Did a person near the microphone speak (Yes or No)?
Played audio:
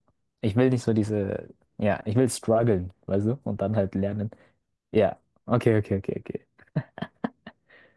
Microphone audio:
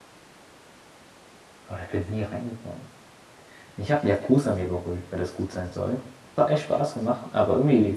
Yes